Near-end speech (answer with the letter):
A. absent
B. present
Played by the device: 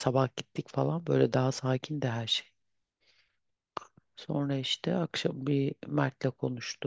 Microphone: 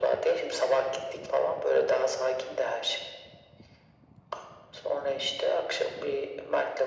A